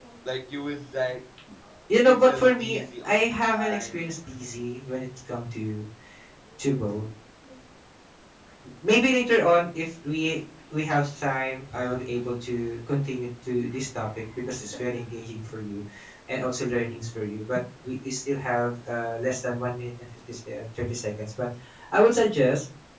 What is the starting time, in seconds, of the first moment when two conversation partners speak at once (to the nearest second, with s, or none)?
2 s